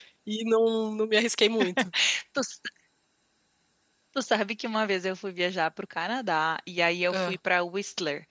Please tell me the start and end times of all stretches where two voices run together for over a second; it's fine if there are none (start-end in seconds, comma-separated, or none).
none